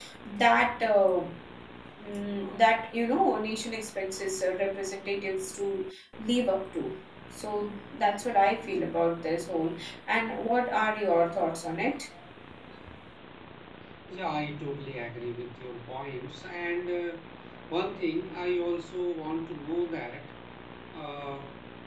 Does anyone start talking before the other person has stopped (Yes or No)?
No